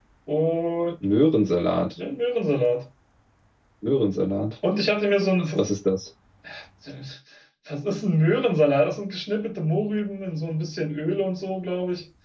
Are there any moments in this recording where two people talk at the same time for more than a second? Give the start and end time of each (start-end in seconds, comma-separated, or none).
none